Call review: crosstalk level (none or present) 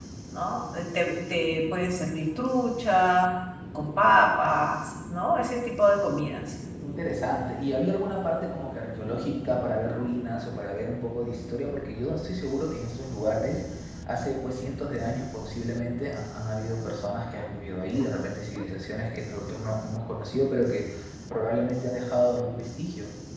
none